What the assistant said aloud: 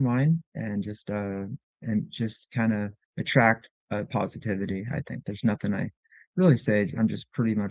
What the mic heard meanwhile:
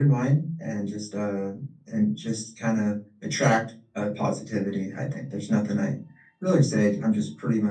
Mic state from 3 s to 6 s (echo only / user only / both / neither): echo only